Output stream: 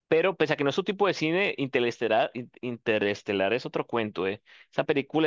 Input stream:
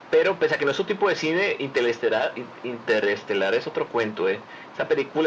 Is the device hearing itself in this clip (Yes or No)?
Yes